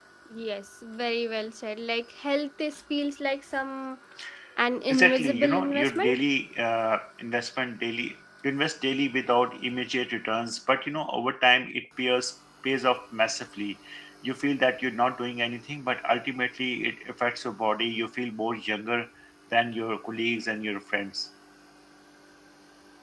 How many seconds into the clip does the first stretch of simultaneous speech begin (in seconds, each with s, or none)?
4.9 s